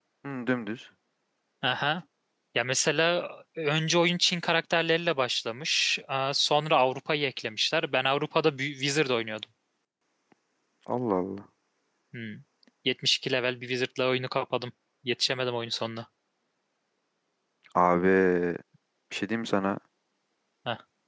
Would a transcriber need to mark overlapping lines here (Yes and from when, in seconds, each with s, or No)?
No